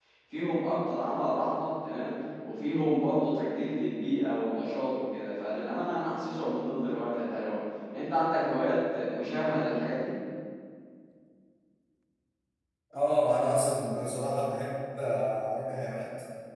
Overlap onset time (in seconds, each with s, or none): none